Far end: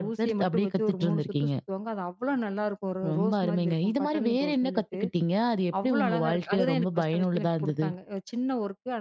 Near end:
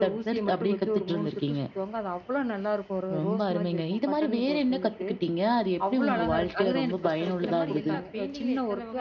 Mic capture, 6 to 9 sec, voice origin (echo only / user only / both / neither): both